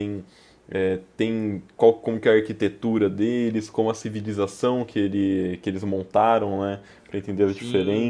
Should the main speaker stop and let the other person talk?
Yes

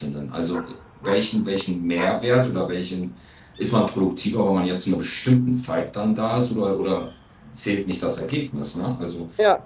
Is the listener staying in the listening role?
Yes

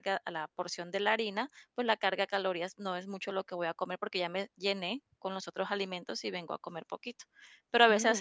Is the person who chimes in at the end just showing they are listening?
Yes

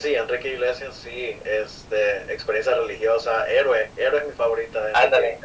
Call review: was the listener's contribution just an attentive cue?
No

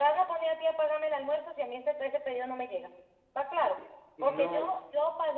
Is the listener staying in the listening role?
Yes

